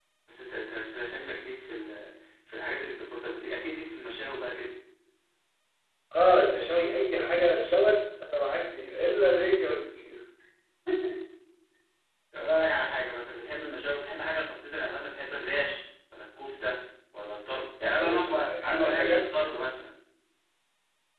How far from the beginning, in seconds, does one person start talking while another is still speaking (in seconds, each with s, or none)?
18.0 s